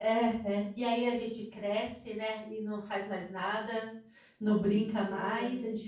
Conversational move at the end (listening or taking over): listening